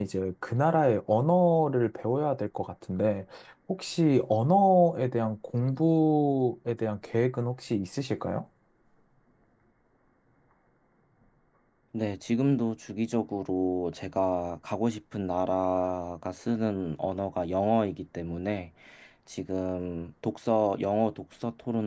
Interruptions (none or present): none